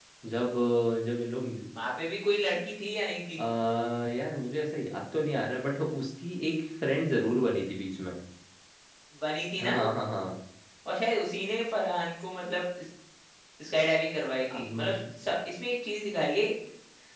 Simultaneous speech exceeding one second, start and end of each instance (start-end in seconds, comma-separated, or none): none